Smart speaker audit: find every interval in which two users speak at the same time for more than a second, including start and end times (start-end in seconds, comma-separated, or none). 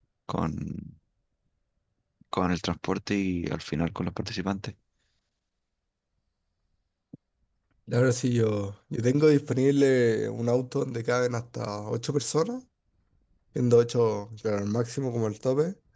none